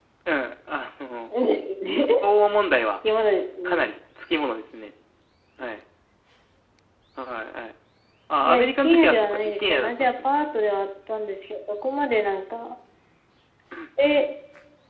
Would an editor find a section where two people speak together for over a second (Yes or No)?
Yes